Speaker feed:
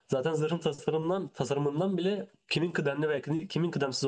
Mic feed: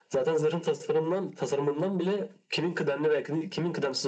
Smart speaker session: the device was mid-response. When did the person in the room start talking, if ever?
none

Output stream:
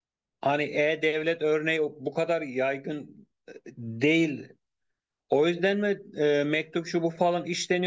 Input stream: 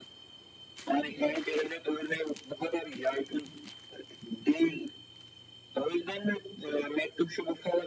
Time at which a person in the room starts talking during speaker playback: none

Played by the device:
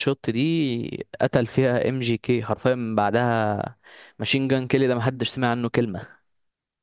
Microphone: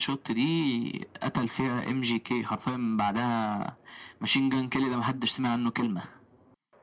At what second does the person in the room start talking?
none

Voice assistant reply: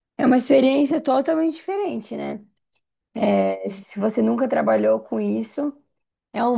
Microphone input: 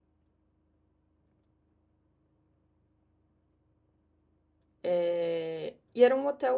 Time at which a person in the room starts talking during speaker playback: 4.8 s

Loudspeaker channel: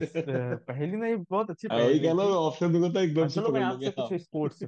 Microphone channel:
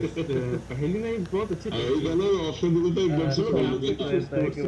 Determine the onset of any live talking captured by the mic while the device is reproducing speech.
3.1 s

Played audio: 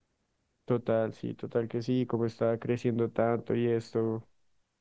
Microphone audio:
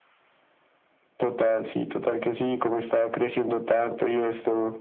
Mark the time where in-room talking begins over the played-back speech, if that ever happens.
none

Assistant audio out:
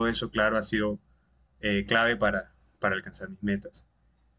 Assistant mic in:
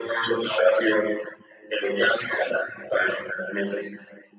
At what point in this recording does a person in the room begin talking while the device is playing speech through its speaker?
none

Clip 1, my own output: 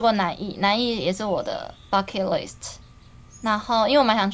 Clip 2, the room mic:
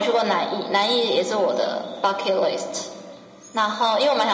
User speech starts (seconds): none

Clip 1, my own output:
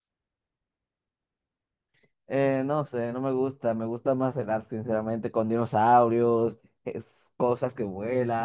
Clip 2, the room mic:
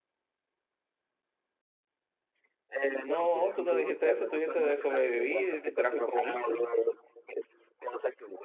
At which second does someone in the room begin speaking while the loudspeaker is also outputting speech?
3.0 s

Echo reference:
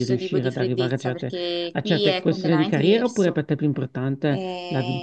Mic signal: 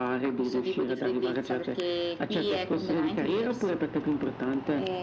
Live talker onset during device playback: none

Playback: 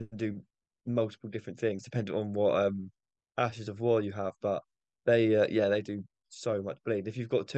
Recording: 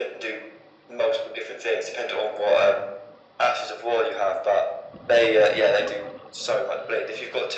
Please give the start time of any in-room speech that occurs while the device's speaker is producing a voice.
none

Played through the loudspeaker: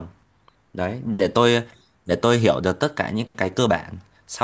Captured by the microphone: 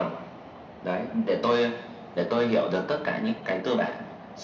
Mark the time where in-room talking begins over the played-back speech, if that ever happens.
none

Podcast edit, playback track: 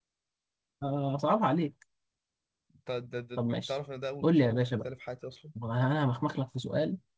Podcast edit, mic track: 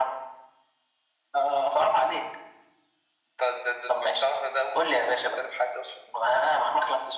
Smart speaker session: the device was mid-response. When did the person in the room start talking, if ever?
none

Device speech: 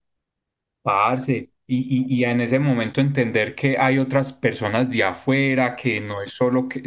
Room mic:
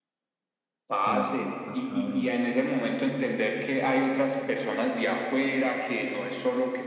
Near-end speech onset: 1.0 s

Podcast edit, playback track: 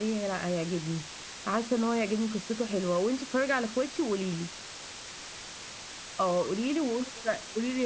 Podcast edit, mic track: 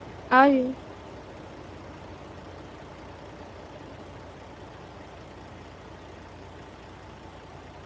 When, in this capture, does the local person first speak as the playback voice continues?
0.3 s

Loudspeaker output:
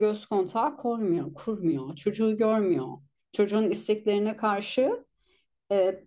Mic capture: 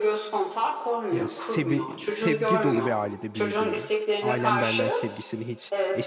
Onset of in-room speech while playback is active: 1.1 s

